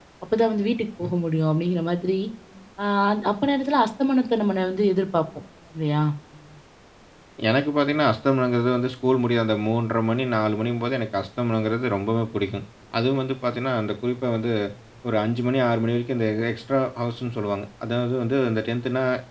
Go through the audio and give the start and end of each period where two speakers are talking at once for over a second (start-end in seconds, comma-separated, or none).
none